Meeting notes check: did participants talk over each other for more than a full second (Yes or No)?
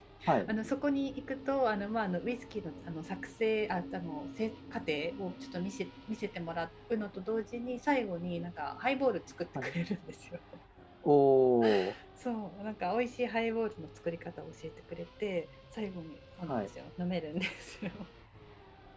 No